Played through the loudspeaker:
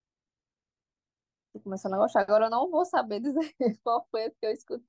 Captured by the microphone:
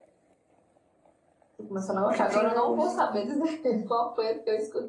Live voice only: O que tenho

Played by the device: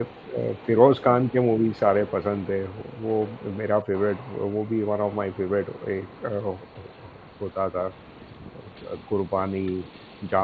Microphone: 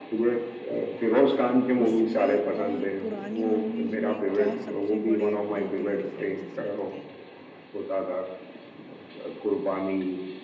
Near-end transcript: उसमें और पुरानी मूवीज में क्या सबसे बड़े दो तीन डिफरेंसेस लगते हैं

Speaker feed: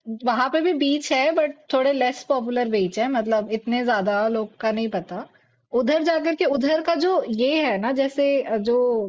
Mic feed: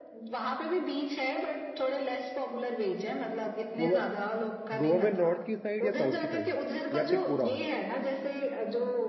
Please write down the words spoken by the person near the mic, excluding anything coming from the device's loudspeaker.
गोवा गोवा में नॉर्थ की साइड या साउथ की साइड या फिर पूरा

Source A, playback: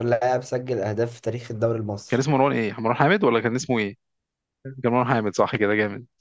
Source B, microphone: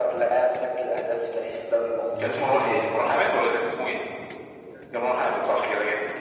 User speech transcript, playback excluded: اللي كسبته الأوروجواي؟

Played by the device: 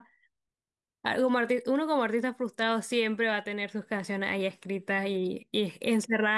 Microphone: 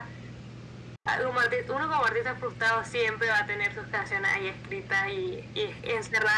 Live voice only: none

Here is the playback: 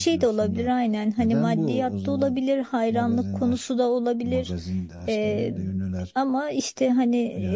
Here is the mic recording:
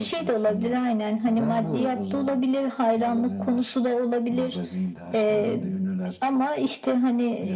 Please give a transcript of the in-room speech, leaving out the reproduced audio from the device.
none

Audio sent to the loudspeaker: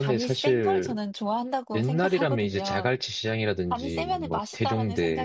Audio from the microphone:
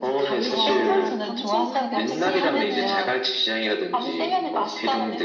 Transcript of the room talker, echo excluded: 어, 광주광역시 하면은

